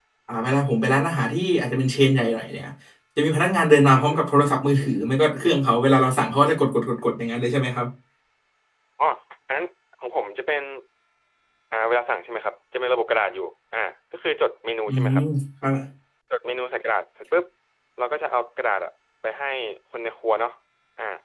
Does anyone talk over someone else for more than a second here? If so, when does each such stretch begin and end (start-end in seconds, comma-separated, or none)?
none